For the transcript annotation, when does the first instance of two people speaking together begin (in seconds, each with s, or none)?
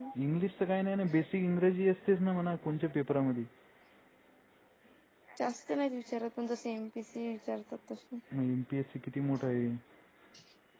none